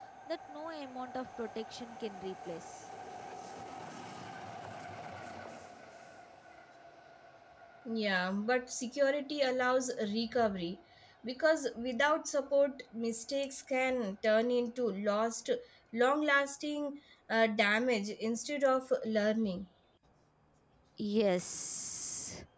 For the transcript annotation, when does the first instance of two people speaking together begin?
none

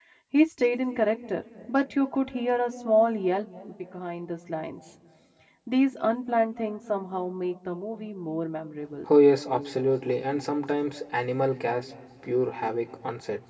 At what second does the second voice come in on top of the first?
none

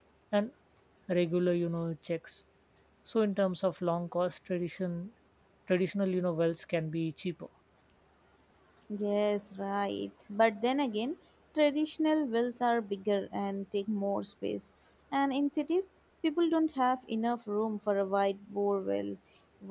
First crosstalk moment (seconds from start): none

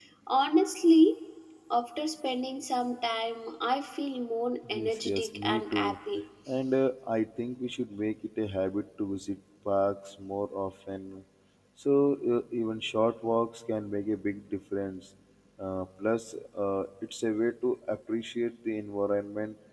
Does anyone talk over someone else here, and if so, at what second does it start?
4.6 s

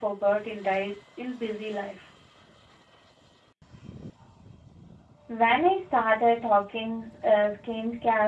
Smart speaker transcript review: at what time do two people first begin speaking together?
none

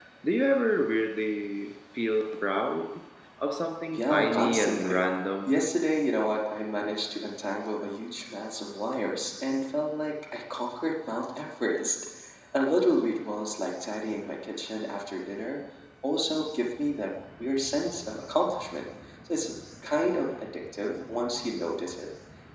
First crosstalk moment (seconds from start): 3.9 s

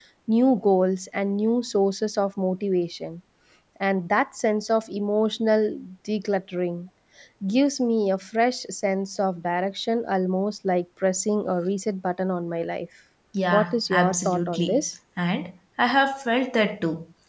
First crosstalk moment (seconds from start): 13.3 s

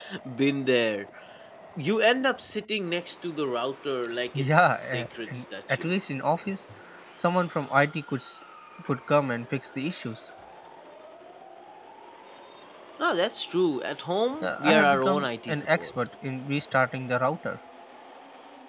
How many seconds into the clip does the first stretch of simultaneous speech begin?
4.5 s

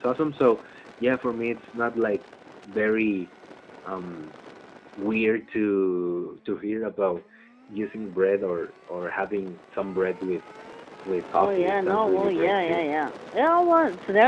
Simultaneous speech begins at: 11.3 s

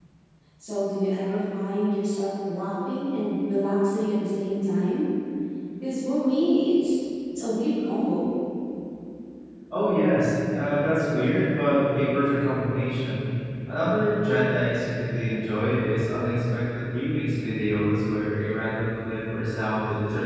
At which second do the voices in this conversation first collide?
none

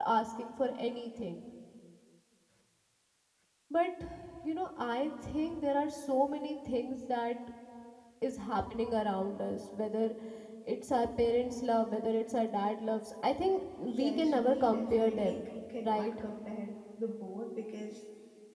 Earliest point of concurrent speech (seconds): 13.8 s

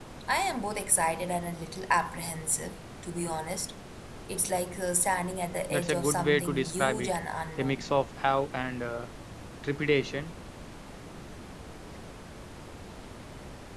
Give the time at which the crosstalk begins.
5.7 s

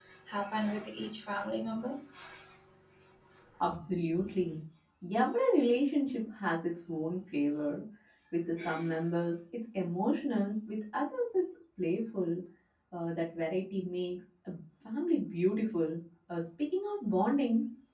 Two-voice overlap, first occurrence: none

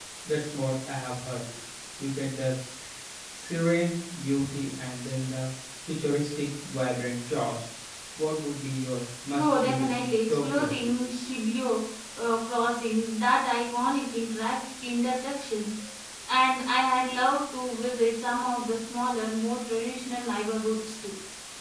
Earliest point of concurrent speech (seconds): 9.3 s

